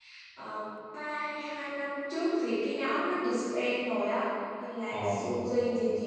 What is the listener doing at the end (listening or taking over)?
listening